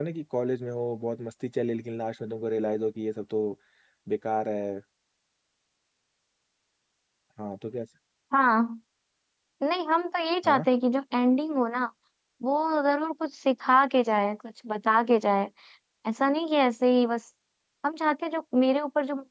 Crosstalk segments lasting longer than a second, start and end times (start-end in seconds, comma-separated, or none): none